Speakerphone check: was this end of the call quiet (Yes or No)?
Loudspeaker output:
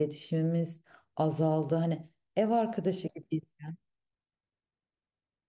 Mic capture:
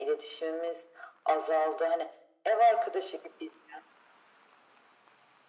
Yes